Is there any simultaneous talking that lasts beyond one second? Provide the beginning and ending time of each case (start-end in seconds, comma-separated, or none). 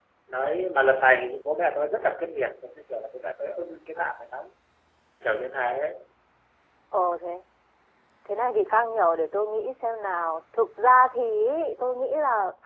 none